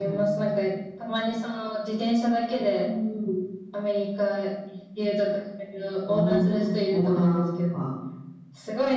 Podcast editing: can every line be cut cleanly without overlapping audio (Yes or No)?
No